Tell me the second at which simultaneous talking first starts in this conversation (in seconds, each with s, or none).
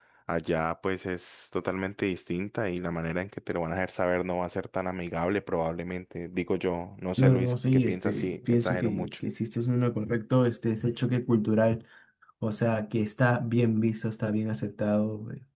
7.2 s